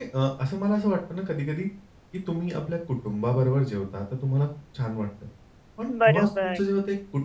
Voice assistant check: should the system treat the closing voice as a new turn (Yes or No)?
No